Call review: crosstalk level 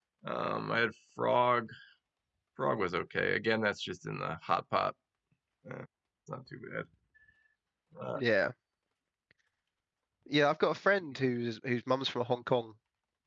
none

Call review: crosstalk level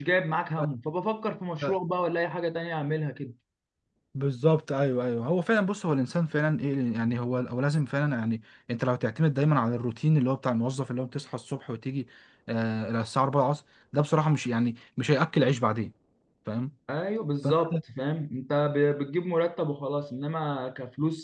none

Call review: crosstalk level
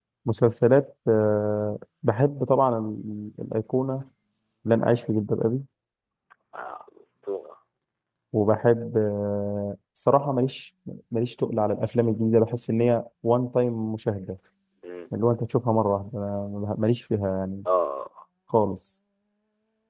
none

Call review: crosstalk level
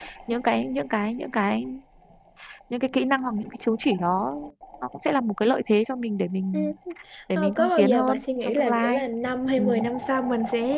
present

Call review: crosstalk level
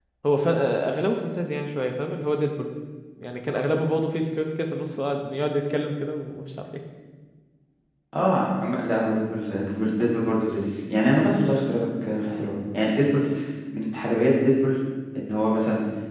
none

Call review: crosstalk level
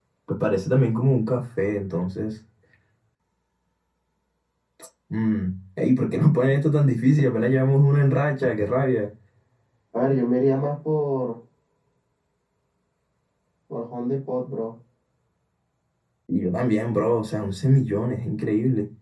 none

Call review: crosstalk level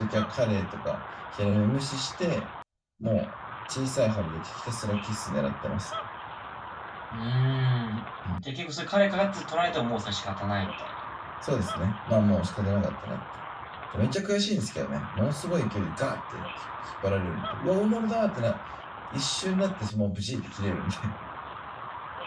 none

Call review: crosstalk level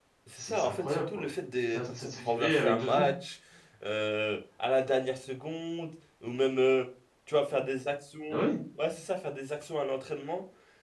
present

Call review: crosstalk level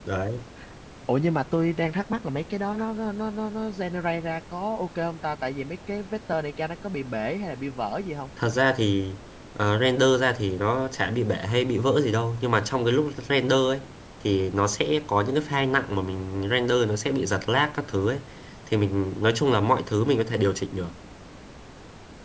none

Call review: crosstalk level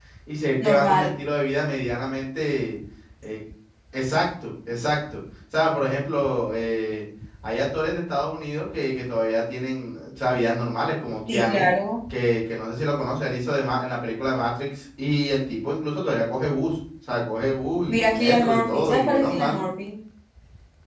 present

